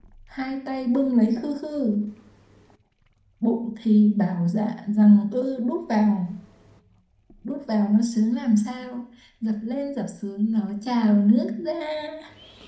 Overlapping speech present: No

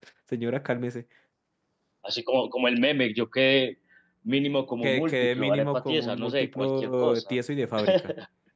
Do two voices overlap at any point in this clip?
Yes, from 4.8 s

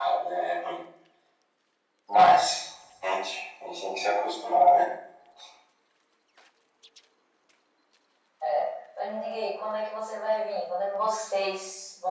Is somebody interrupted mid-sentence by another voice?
No

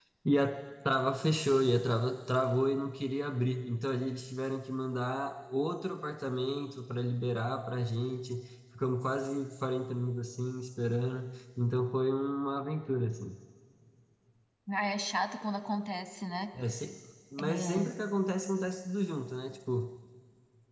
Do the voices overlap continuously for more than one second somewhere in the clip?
No

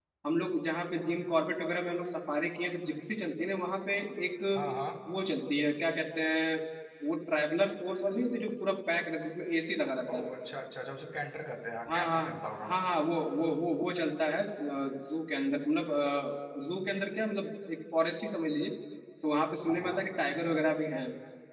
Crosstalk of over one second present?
No

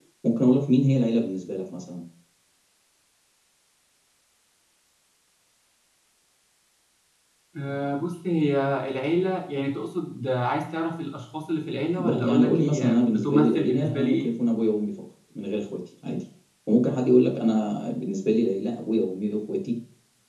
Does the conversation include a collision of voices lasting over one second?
Yes, from 12.0 s

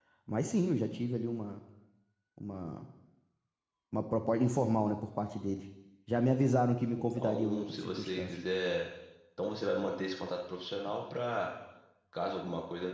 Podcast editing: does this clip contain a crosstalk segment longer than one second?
Yes, from 7.0 s

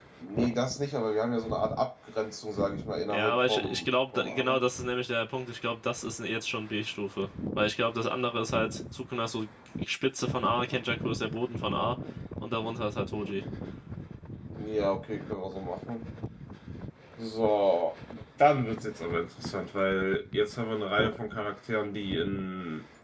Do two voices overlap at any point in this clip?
Yes, from 3.1 s

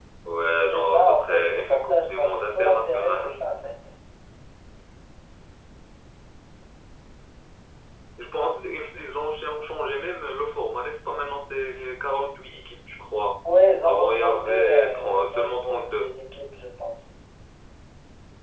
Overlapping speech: Yes, from 0.7 s

